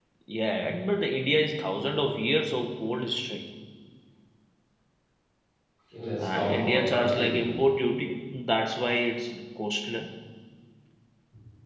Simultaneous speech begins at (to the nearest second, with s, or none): 6 s